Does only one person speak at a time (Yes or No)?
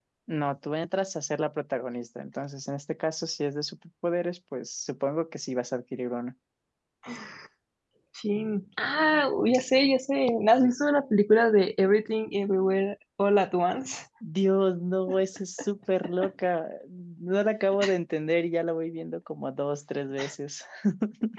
Yes